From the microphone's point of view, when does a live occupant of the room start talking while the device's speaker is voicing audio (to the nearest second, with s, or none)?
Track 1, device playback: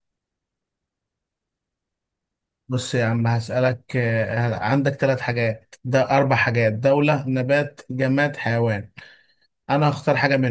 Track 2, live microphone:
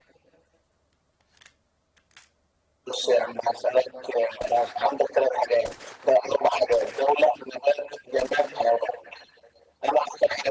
none